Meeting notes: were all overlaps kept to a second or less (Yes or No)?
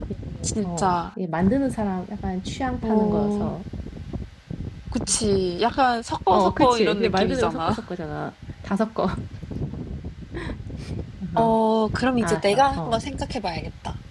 No